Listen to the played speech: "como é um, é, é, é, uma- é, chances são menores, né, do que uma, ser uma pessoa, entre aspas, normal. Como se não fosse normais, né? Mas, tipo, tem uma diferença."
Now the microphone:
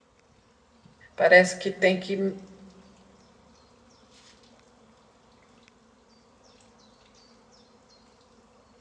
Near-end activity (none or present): present